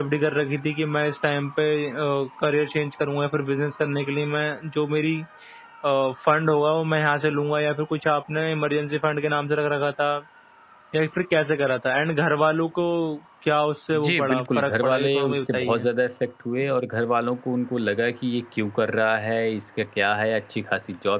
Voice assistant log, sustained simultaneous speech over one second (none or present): present